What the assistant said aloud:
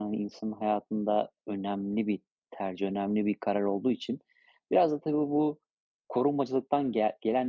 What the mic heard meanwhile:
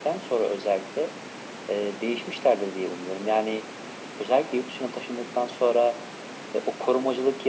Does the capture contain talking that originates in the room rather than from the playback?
Yes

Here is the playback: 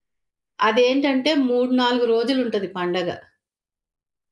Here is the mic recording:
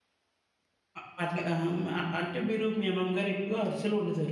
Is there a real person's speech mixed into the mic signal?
Yes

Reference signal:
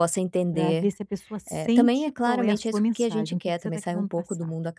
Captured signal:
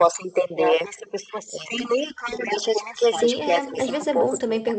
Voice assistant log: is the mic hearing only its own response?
No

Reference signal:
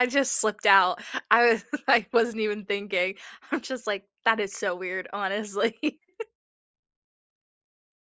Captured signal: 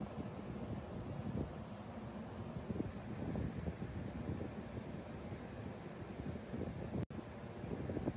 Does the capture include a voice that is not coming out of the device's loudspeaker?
No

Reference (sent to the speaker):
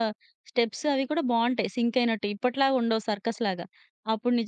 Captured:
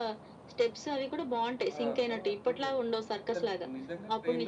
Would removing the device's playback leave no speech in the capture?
No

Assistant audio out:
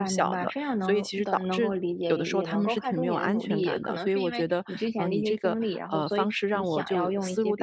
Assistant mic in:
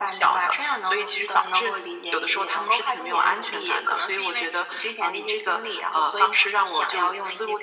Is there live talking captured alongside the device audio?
No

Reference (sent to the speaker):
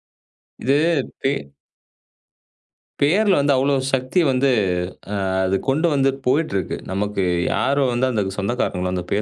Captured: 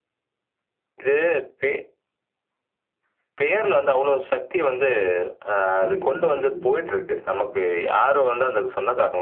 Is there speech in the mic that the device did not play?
Yes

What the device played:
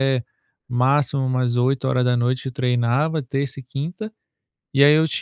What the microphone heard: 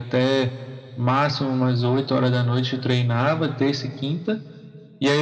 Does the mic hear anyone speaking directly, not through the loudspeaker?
No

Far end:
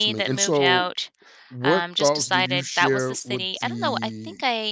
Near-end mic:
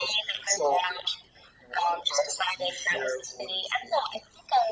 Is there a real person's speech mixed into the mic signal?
No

